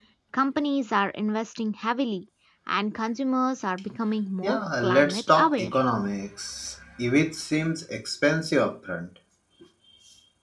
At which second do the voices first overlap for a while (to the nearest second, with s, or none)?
4 s